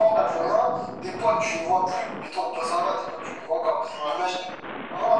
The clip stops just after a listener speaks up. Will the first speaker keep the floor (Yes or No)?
Yes